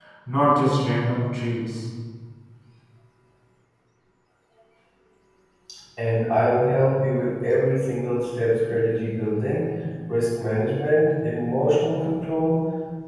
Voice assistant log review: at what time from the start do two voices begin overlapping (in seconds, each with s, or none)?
none